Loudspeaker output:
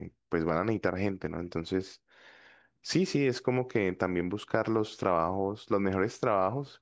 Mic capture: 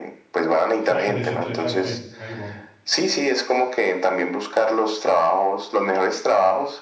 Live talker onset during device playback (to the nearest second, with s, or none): 1 s